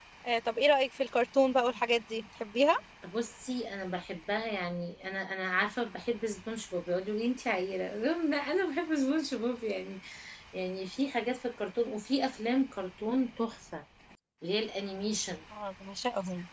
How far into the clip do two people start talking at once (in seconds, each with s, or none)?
none